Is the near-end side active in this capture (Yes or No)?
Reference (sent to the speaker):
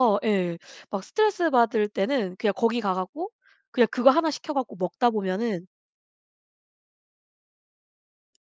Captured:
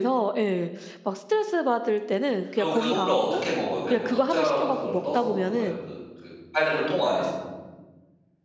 Yes